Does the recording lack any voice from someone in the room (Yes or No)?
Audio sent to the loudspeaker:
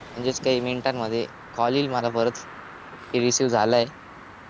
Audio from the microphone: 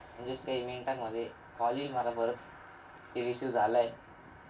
Yes